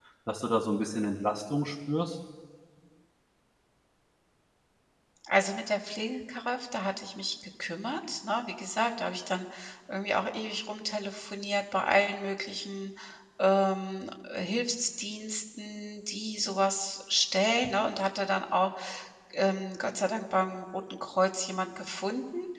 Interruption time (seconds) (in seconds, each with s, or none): none